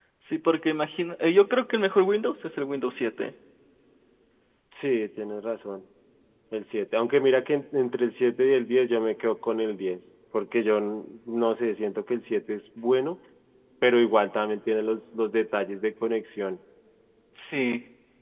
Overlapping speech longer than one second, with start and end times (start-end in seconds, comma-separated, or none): none